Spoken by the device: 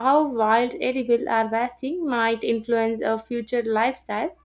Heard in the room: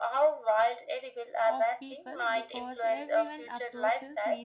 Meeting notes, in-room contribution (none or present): present